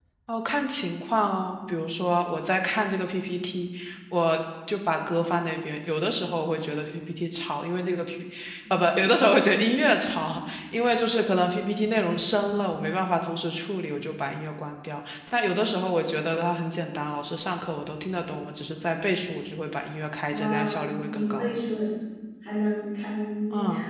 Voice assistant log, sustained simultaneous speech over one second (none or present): none